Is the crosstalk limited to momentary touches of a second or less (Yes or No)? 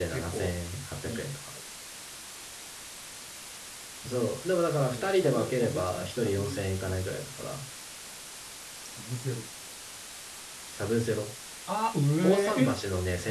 No